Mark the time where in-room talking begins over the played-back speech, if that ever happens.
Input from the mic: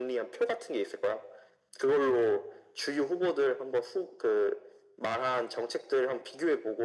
none

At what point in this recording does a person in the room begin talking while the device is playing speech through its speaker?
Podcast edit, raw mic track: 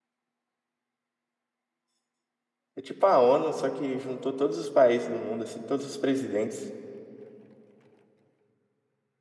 2.7 s

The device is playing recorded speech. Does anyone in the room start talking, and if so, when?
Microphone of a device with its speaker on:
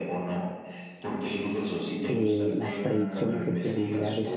2.1 s

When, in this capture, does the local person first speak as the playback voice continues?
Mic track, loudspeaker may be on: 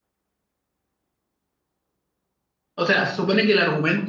2.7 s

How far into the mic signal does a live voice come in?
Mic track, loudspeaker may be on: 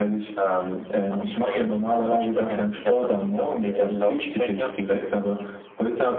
none

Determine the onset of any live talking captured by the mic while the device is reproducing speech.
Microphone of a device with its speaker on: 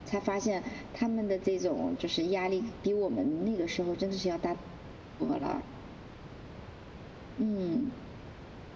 none

